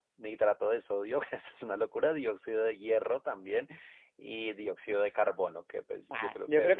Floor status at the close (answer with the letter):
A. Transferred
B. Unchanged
A